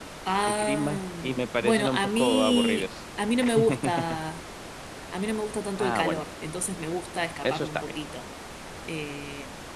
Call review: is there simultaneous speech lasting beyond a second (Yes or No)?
Yes